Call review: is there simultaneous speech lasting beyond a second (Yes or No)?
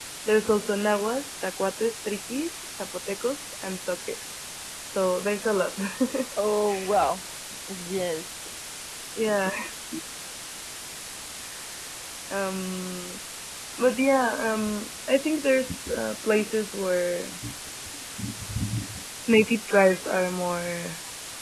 No